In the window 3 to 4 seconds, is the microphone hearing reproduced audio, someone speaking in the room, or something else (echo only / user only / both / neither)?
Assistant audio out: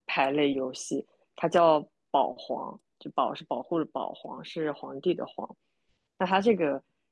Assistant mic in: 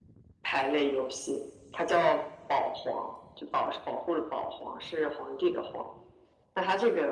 echo only